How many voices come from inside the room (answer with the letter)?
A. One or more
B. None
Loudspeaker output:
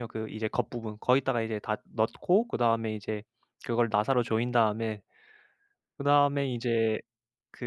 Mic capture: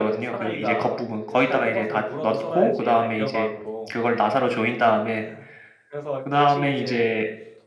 A